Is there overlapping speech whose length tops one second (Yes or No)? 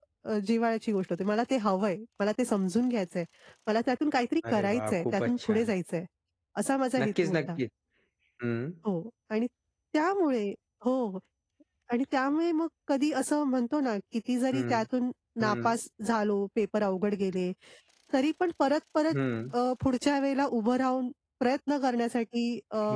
Yes